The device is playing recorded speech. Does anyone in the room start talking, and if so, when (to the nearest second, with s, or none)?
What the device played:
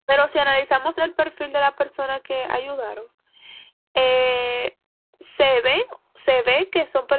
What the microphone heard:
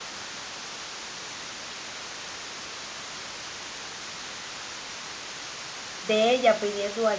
6 s